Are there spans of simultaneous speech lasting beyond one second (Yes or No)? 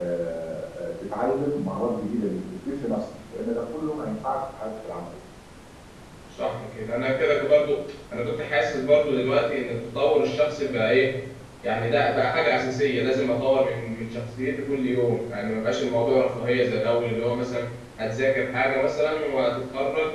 No